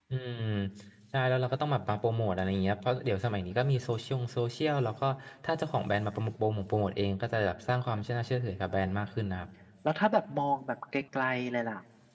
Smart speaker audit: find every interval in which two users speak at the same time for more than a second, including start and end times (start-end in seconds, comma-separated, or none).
none